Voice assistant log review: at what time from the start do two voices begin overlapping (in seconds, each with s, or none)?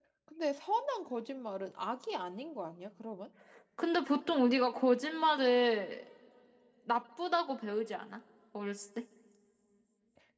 none